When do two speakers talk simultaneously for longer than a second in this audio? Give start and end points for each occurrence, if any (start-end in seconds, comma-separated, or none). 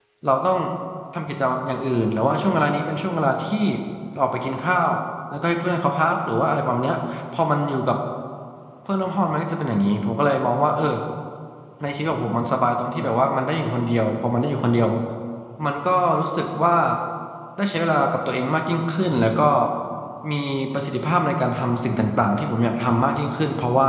none